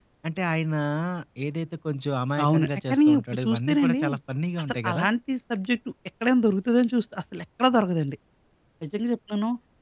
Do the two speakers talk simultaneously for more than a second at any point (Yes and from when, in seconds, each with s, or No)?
Yes, from 2.4 s